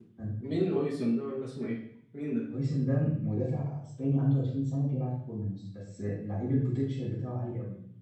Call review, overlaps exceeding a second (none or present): none